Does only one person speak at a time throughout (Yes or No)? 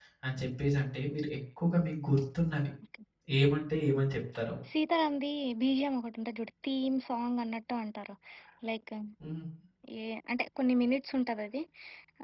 Yes